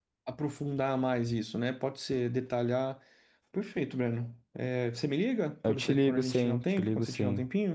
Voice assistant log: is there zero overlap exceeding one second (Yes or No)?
No